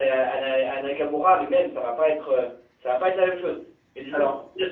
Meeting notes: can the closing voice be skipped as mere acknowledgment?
Yes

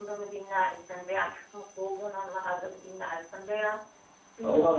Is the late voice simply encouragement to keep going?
Yes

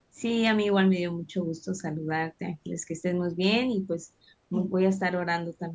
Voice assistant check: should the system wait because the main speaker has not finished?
Yes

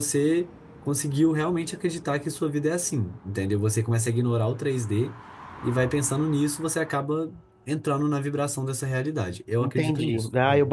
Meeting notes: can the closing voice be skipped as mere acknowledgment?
No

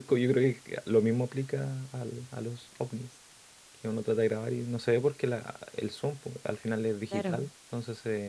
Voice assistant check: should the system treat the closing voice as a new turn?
No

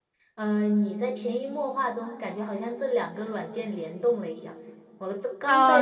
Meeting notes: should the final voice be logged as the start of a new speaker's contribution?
Yes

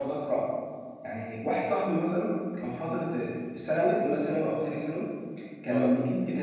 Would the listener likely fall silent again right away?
Yes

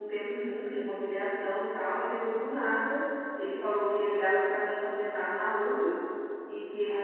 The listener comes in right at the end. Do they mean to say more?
No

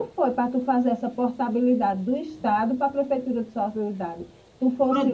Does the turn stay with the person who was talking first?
No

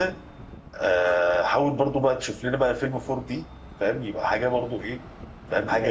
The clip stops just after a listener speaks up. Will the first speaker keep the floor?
No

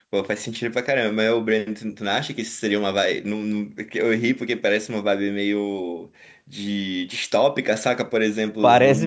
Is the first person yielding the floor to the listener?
No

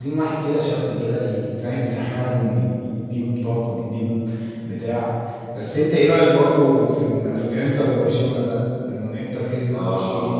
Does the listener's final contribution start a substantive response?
Yes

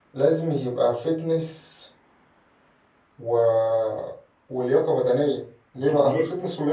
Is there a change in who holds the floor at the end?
No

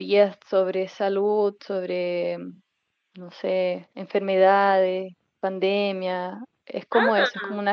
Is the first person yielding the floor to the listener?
No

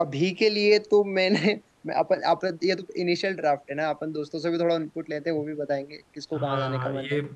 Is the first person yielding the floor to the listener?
Yes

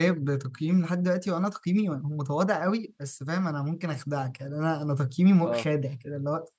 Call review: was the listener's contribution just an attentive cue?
Yes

